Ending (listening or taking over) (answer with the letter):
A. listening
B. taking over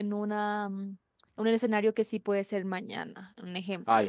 B